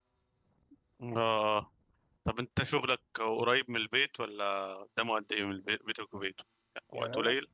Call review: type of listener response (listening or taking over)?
taking over